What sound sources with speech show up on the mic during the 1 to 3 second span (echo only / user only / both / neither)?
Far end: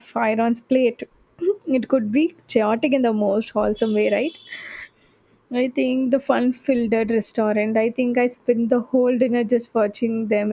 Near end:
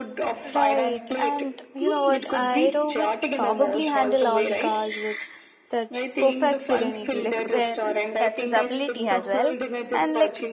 both